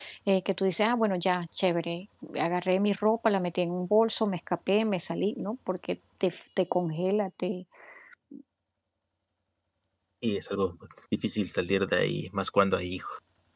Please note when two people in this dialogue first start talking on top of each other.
none

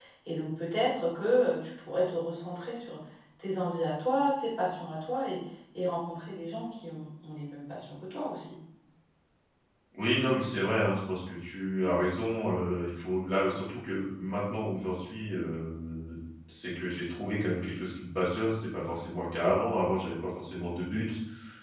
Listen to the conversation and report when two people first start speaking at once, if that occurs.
none

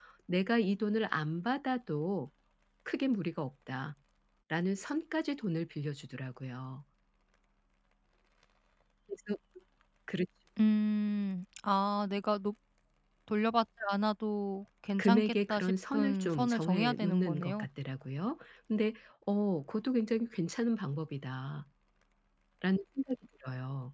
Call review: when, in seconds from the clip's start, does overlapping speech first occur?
15.0 s

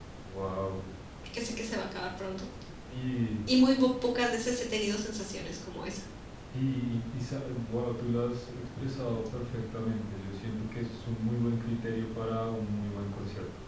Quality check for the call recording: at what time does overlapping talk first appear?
none

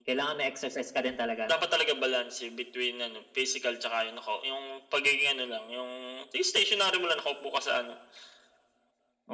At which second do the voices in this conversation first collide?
none

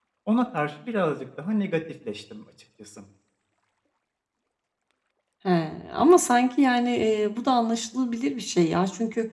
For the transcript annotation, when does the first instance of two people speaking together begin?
none

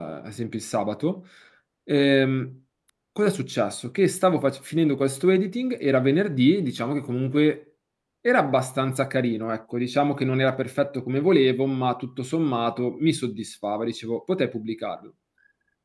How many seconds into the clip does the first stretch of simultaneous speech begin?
none

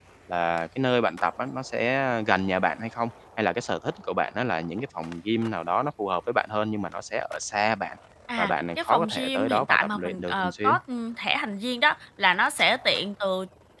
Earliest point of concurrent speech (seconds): 8.4 s

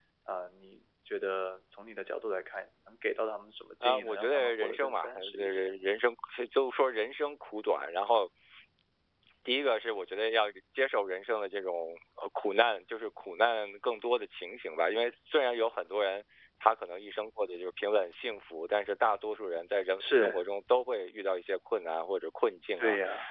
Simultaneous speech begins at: 3.8 s

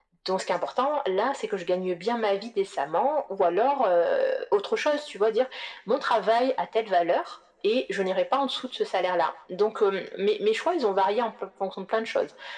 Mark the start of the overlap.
none

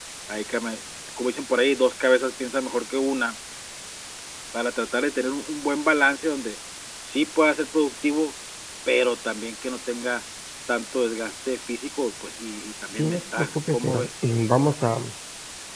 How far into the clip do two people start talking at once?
12.9 s

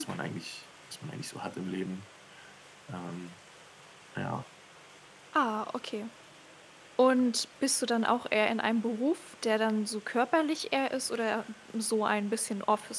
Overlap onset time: none

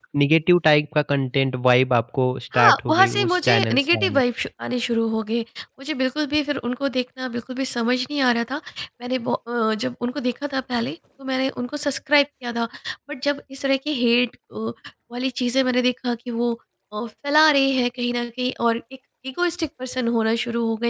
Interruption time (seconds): 2.5 s

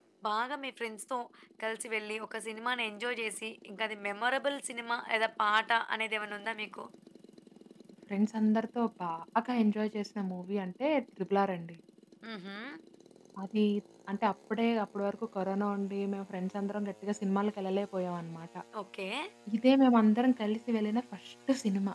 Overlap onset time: none

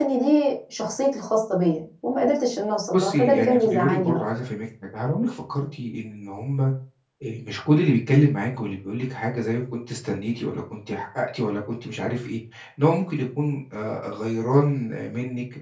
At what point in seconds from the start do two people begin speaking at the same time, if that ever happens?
2.9 s

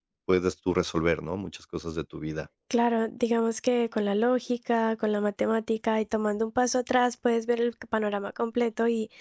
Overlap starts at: none

